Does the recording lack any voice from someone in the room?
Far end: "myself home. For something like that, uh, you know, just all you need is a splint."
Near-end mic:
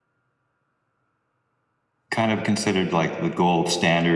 No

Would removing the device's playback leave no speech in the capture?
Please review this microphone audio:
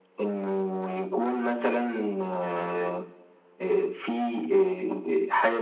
Yes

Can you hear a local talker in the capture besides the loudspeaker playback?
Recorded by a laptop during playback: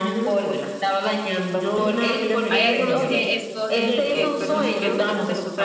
Yes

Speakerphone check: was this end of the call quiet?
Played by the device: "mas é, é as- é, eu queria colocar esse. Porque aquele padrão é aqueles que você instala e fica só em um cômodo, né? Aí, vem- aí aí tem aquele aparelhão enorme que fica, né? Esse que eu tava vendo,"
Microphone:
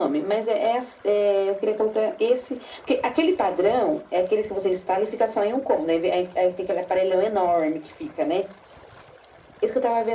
Yes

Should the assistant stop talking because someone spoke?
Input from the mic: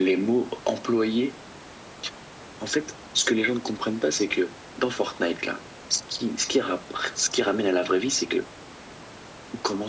No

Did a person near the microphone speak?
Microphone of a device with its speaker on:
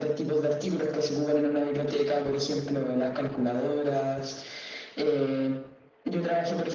No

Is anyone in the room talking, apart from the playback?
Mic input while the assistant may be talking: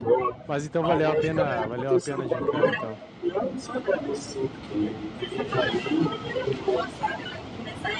Yes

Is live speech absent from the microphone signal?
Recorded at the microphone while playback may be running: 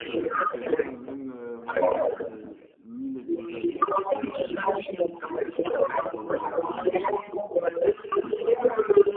No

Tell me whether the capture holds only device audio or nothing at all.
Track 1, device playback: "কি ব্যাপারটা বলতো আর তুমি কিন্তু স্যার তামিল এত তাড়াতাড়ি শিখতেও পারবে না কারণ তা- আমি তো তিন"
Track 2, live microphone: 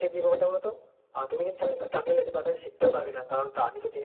Yes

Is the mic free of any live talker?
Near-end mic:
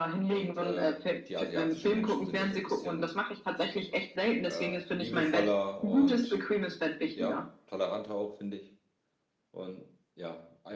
No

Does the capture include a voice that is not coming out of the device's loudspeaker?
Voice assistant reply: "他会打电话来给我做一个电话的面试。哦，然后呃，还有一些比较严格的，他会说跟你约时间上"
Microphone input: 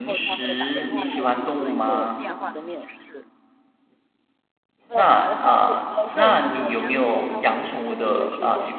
Yes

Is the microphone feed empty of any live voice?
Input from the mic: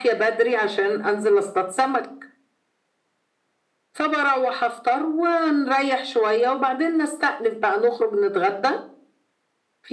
Yes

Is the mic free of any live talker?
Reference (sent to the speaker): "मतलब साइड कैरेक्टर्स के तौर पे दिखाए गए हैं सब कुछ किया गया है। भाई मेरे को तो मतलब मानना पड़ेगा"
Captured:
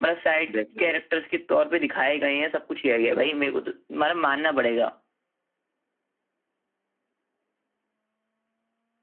No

